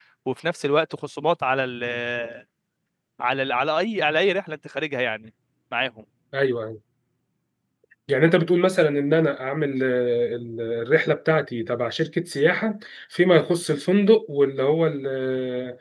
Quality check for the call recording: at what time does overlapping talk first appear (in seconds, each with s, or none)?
none